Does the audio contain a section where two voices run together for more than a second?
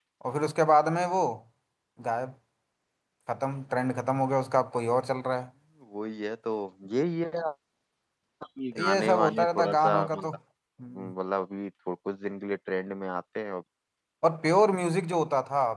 Yes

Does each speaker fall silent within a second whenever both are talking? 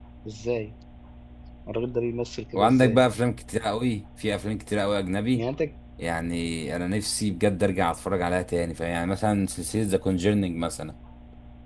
Yes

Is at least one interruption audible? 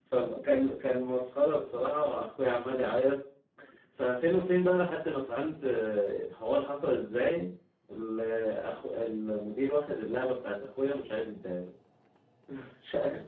No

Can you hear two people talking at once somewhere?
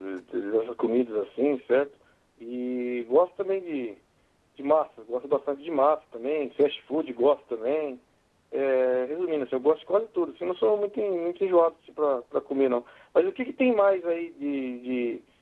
No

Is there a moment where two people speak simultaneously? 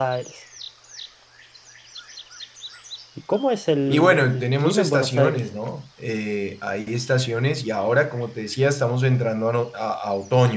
Yes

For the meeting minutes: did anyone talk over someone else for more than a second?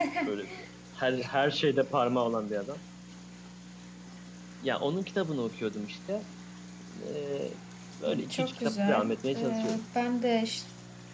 Yes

